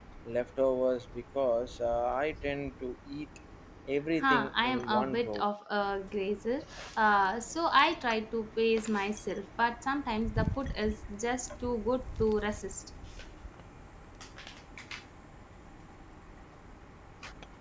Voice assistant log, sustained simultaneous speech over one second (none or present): present